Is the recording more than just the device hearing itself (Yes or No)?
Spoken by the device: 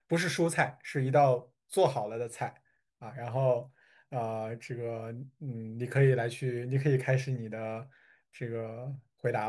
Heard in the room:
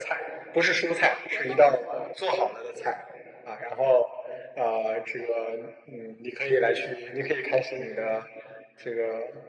Yes